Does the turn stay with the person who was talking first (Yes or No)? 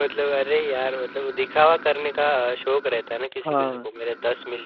Yes